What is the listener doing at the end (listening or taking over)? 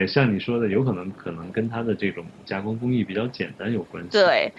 taking over